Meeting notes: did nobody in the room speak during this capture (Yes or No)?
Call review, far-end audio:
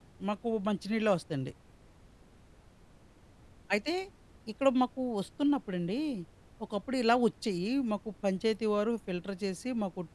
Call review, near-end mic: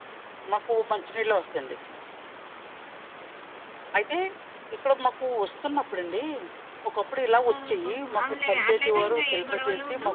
No